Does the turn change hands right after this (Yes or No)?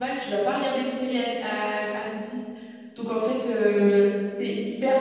No